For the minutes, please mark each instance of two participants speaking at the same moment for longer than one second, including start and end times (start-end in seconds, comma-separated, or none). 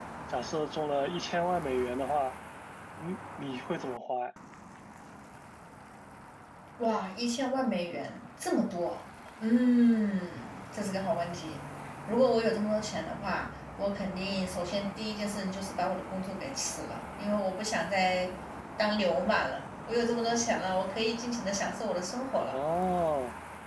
none